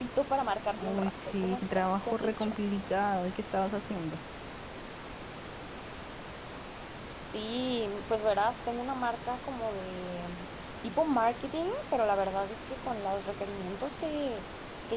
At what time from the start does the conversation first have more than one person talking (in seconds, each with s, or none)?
0.7 s